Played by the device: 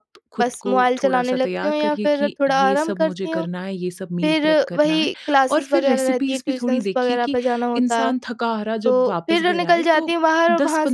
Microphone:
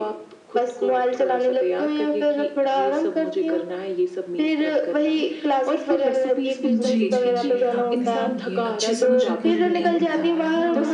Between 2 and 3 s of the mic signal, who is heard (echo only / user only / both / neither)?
echo only